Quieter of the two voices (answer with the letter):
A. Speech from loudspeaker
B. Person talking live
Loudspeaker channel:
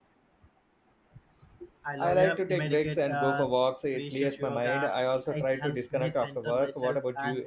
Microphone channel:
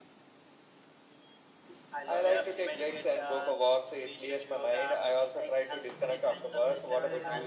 B